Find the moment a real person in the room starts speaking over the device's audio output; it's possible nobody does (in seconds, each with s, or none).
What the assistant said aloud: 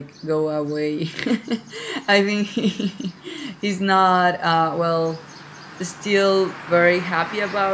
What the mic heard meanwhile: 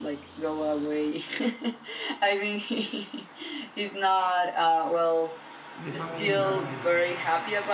5.8 s